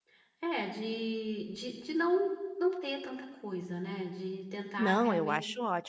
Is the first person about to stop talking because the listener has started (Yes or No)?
Yes